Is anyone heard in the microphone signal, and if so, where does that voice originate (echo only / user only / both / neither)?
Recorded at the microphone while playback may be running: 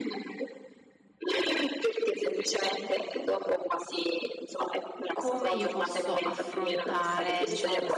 both